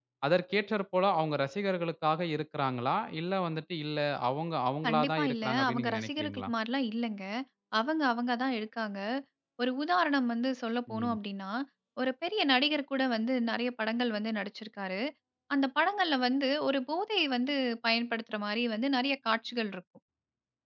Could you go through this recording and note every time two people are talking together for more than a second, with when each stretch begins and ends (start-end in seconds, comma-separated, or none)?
4.9-6.5